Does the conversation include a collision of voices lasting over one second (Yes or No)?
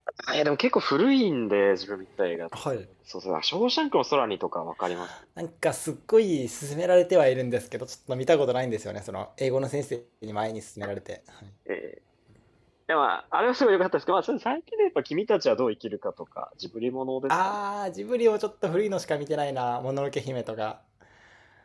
No